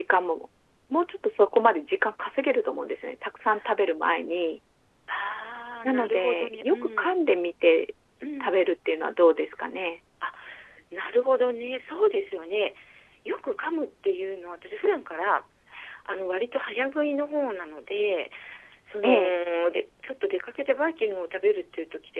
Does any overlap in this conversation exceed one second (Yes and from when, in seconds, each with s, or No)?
Yes, from 5.8 s